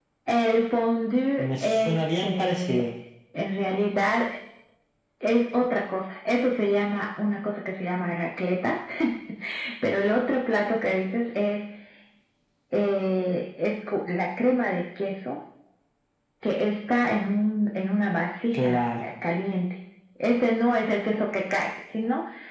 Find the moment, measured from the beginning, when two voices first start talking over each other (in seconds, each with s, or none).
1.4 s